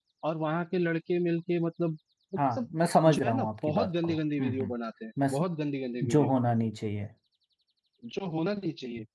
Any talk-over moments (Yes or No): Yes